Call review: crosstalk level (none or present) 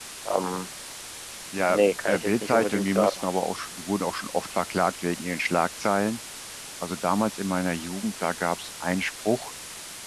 present